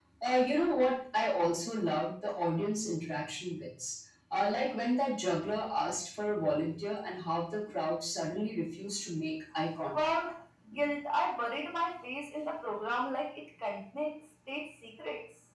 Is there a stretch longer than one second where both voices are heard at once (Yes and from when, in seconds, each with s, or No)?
No